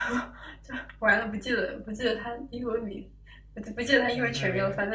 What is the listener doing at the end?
taking over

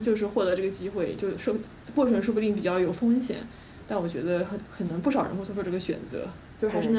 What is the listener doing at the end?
taking over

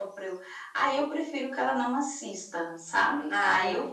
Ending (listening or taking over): listening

